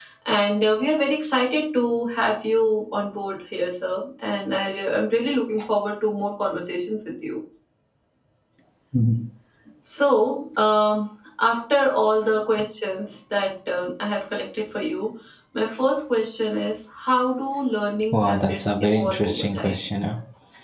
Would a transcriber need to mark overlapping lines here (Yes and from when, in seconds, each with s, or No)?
Yes, from 18.1 s